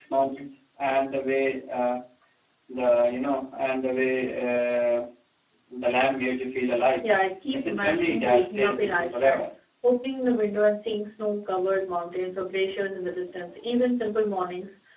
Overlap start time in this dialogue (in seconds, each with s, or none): 7.5 s